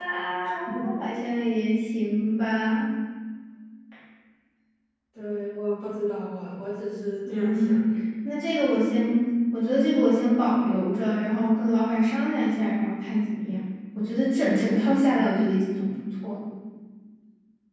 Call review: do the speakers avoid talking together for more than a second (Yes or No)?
Yes